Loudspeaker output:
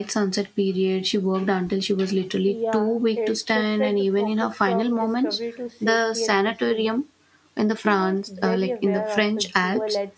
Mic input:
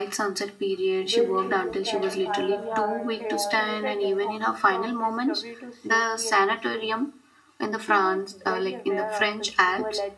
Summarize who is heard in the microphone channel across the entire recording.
both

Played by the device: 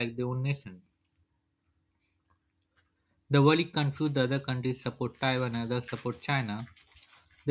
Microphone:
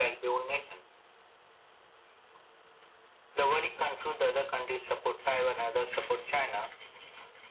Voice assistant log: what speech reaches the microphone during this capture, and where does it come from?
echo only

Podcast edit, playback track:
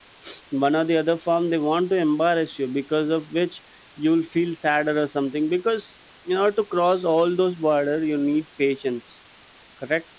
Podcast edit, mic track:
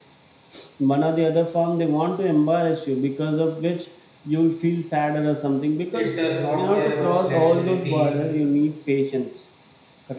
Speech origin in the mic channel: both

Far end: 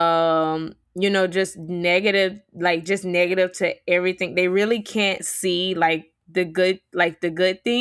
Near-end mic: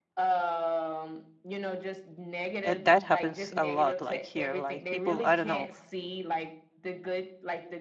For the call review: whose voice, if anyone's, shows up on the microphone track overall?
both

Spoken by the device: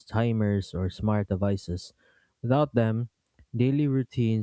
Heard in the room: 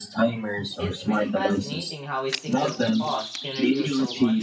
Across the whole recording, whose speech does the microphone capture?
both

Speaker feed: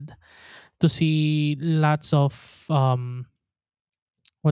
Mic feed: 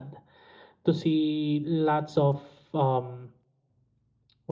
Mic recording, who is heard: echo only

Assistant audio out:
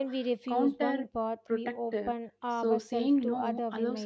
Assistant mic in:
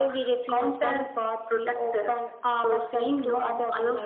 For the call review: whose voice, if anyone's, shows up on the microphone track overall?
echo only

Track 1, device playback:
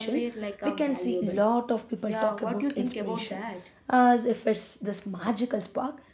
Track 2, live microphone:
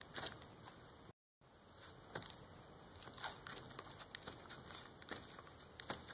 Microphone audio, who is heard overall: neither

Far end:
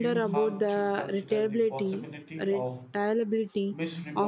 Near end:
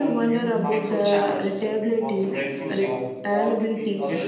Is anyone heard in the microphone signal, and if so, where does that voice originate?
both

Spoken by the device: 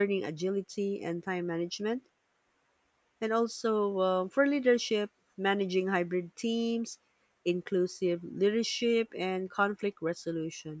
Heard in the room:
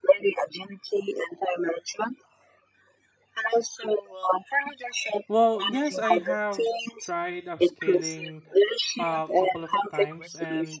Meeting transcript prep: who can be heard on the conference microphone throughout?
both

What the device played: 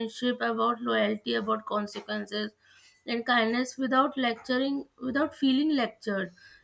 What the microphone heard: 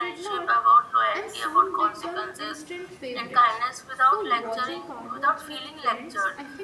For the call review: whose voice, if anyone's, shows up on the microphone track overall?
both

